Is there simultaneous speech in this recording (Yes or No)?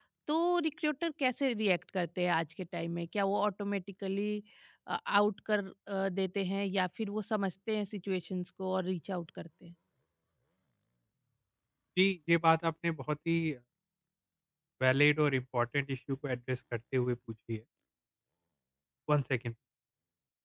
No